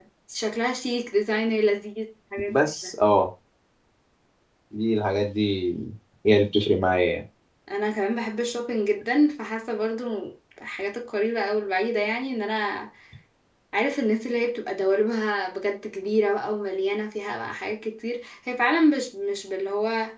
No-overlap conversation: Yes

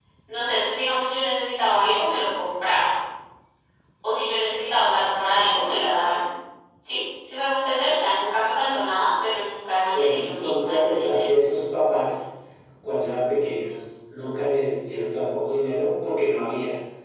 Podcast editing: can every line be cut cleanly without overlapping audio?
No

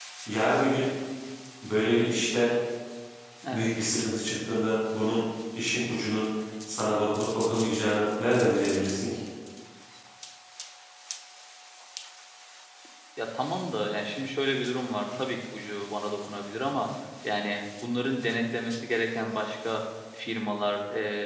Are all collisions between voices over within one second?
Yes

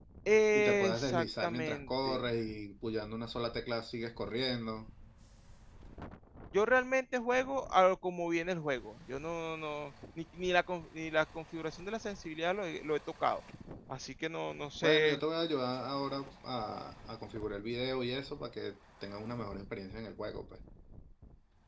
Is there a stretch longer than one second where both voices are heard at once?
Yes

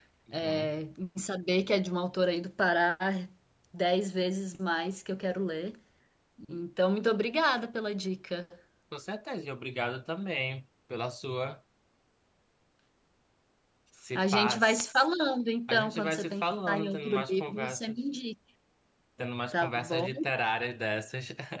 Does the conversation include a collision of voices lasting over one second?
Yes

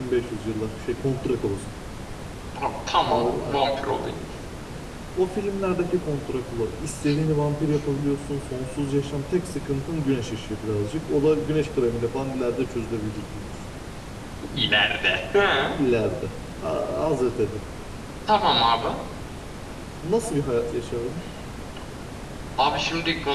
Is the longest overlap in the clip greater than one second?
No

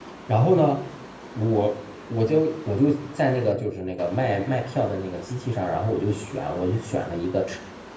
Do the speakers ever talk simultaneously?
No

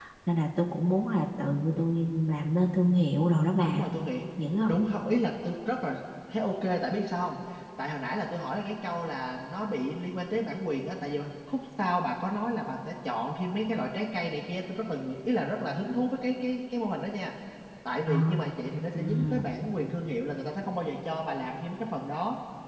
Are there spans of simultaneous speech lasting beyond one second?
No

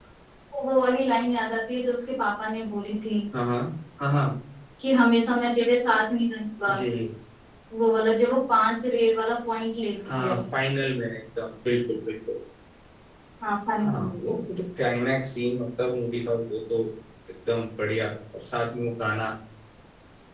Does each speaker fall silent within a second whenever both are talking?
Yes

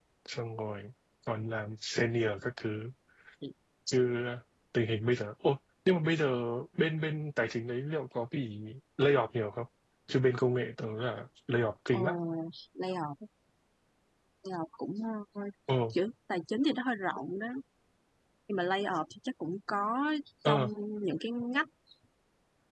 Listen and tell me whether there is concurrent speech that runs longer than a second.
No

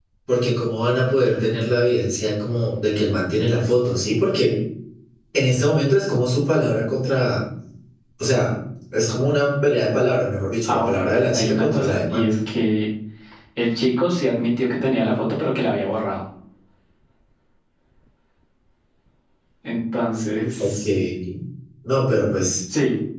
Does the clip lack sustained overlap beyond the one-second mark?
No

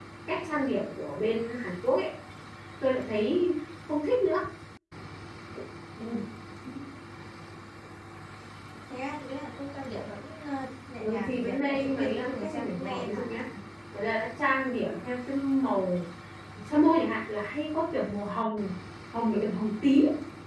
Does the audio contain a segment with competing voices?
Yes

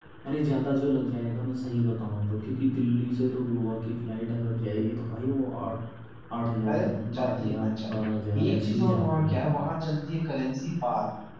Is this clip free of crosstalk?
No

